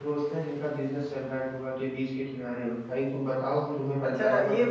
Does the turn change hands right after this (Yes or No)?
Yes